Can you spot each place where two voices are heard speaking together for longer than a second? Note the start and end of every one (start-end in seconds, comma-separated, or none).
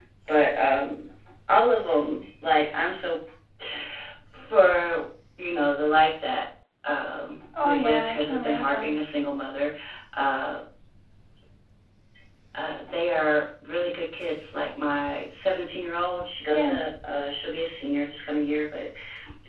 7.6-8.9